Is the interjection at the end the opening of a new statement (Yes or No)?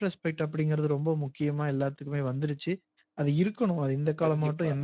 No